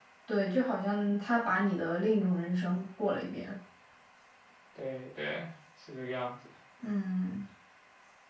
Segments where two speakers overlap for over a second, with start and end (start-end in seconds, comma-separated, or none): none